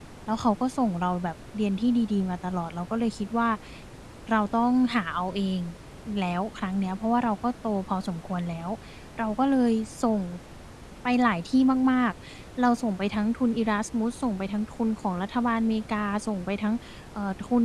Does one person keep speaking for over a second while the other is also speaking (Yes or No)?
No